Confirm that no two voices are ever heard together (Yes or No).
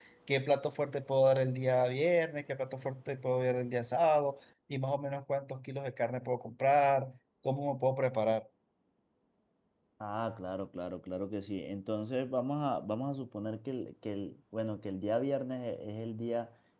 Yes